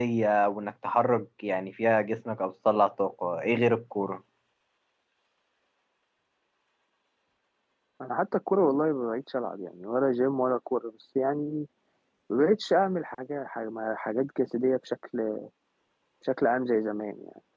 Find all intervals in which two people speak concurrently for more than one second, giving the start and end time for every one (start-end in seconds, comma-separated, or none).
none